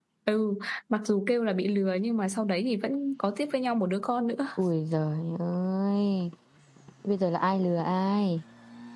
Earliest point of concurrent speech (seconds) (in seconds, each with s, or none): none